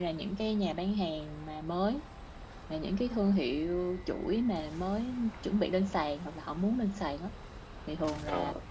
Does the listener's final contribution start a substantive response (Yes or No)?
No